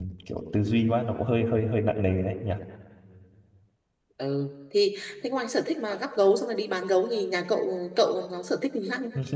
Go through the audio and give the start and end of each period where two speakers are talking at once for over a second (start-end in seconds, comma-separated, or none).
none